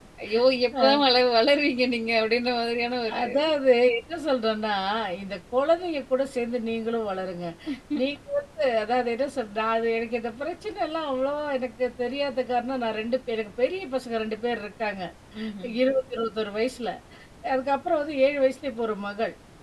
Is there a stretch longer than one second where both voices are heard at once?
No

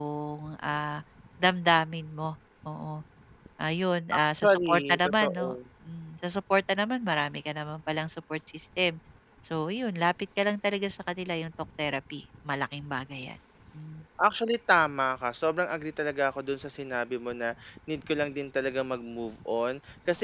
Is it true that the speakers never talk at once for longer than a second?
No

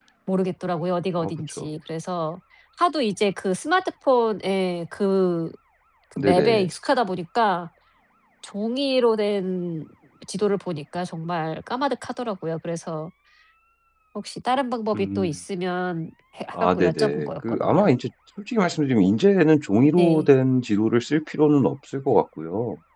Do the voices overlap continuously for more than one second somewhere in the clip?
Yes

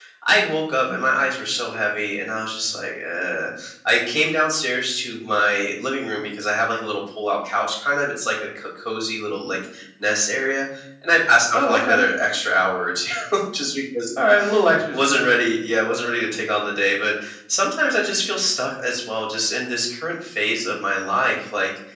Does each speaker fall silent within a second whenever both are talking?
Yes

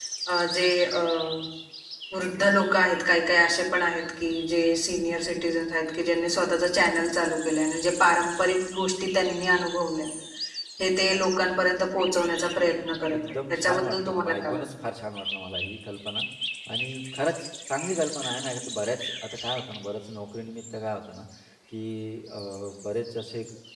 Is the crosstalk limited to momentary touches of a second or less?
No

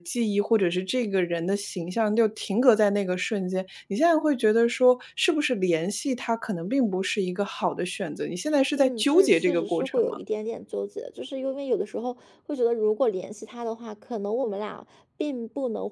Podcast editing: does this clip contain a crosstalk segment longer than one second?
Yes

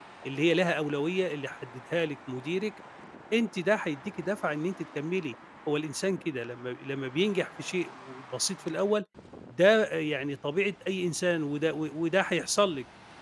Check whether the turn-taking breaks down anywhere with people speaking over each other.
No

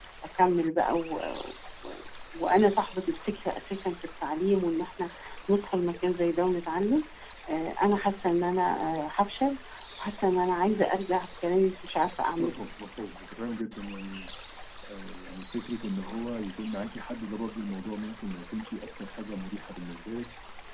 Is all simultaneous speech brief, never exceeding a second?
Yes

